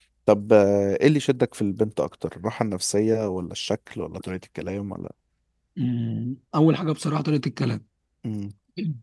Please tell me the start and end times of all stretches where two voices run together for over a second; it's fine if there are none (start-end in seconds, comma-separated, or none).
none